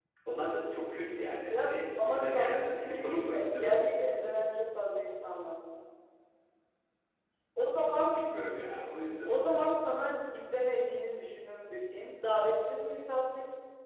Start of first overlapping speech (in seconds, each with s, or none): 1.5 s